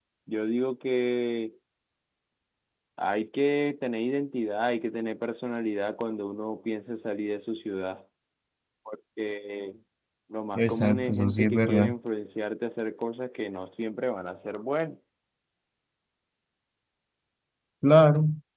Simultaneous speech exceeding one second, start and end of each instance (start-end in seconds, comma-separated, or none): 10.6-11.9